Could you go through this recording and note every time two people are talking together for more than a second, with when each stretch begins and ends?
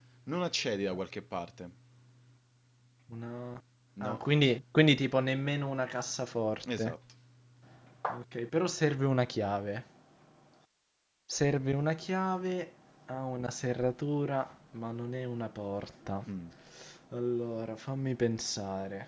none

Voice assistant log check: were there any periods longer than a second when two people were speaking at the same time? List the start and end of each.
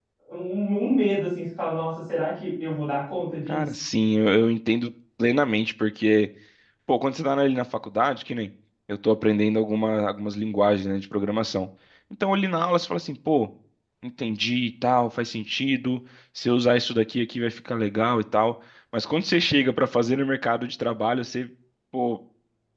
none

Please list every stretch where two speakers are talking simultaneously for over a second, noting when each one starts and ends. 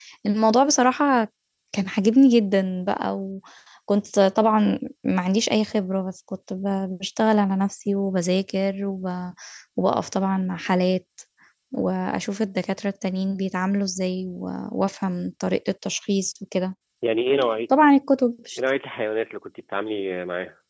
none

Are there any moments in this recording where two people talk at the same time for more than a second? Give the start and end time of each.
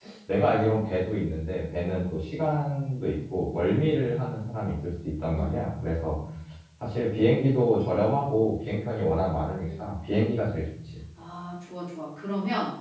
none

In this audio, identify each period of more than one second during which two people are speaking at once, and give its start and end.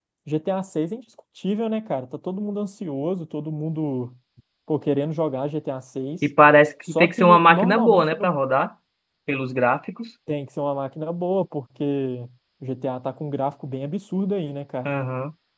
6.9-8.3

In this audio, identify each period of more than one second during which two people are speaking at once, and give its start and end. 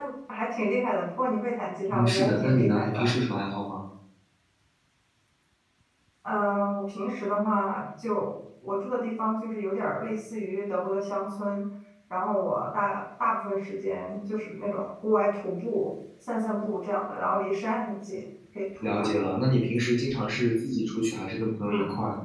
1.9-3.1

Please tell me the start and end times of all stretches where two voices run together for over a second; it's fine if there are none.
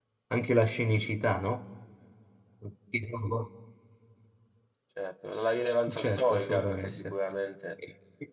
5.9-7.1

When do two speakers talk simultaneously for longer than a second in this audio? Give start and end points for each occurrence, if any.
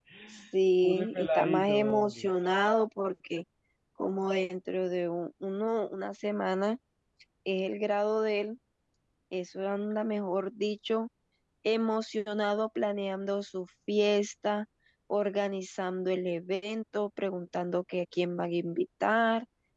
0.8-2.3

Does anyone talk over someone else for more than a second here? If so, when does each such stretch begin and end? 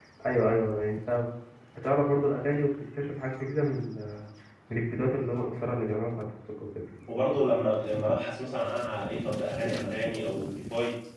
none

